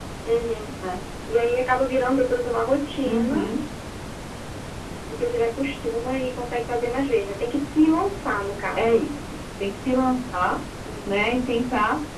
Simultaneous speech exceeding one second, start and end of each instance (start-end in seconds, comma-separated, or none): none